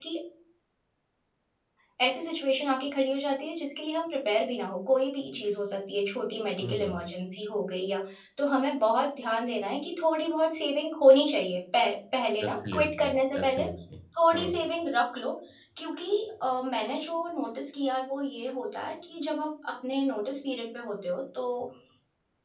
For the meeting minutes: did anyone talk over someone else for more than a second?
Yes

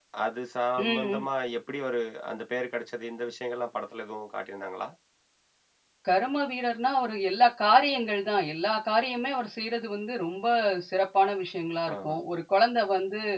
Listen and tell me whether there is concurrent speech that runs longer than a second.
No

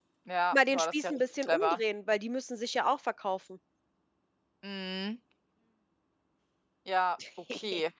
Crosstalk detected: Yes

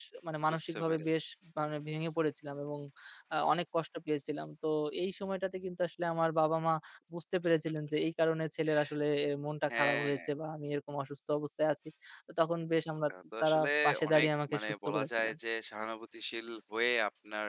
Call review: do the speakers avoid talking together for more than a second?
No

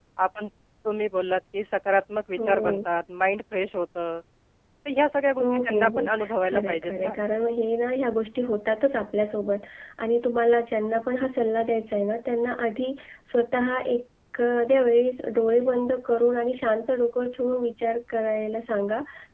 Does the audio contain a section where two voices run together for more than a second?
Yes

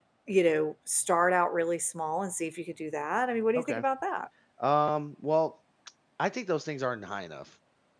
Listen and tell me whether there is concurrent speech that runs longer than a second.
No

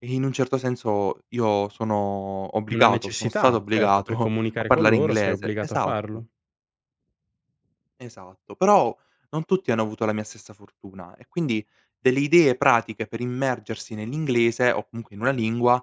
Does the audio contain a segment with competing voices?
Yes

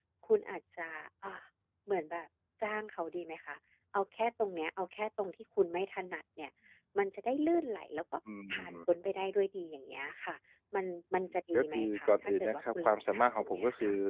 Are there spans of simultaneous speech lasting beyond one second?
Yes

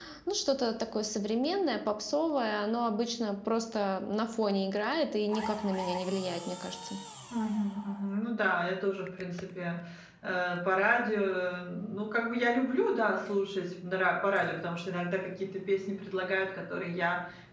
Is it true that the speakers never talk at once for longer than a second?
Yes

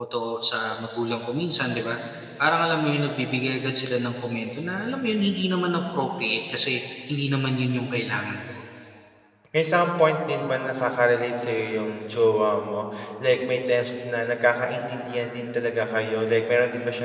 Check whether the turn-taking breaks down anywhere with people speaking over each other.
No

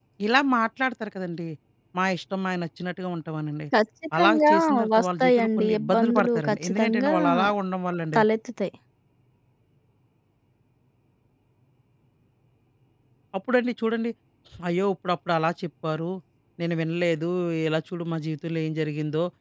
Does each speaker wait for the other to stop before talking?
No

